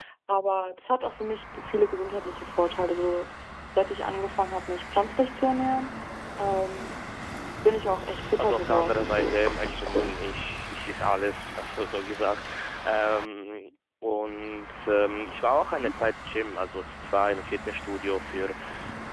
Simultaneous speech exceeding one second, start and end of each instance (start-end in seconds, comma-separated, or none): 8.4-10.2